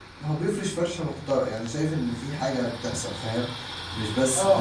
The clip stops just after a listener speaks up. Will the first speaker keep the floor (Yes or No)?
No